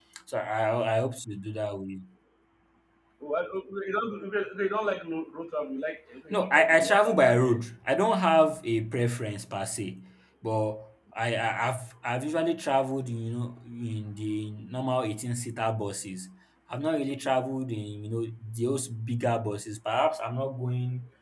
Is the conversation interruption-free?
No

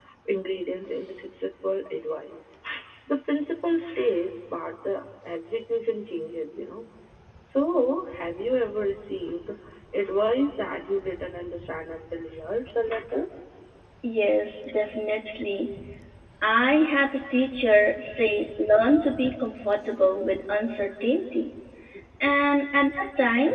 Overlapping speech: No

